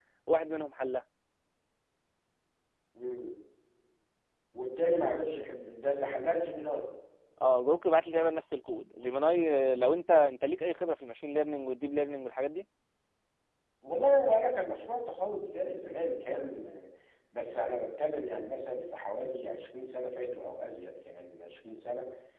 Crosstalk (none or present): none